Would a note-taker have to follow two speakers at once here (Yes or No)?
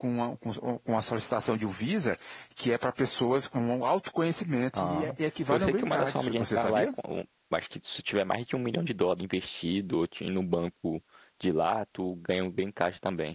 Yes